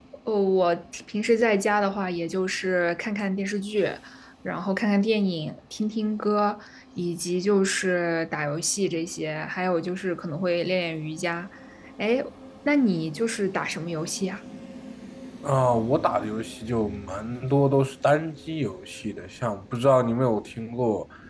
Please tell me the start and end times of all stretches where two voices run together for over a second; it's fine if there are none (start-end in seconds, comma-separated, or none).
none